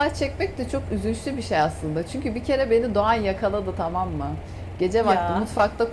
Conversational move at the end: listening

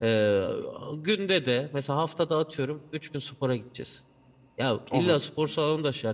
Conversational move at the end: listening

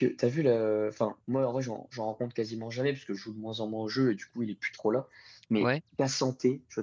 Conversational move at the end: listening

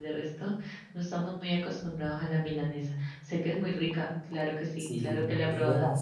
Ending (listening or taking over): taking over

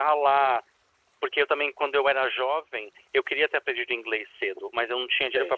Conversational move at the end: listening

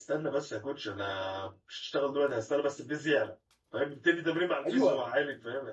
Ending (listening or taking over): taking over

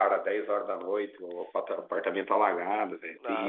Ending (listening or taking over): taking over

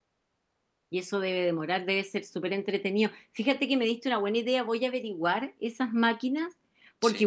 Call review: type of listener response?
listening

